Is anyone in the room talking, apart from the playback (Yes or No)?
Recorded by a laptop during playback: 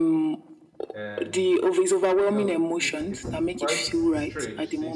Yes